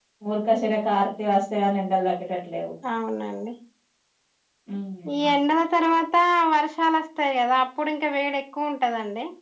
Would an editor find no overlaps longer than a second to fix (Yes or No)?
Yes